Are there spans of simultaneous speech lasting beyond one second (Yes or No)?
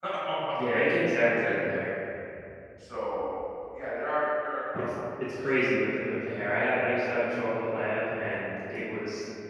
Yes